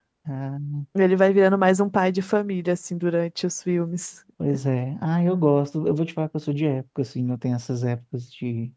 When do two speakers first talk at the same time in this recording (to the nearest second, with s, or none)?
none